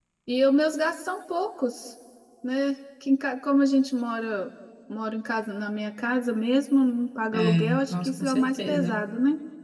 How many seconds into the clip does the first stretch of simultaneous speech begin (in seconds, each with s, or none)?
7.3 s